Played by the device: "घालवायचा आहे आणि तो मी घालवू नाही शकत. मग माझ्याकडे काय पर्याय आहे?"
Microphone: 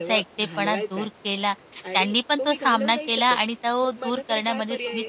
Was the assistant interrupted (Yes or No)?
Yes